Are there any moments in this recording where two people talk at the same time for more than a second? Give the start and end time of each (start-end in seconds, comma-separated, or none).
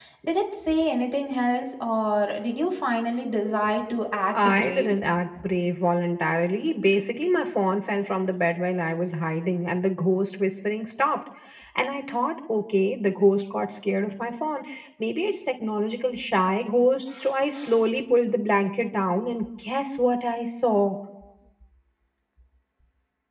none